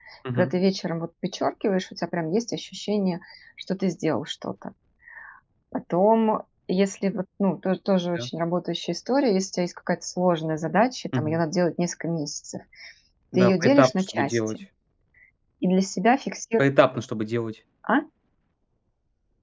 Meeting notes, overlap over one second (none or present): present